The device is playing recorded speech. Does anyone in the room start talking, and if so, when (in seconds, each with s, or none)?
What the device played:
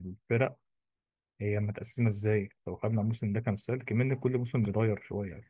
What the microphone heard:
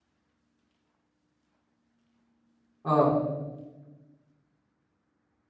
2.8 s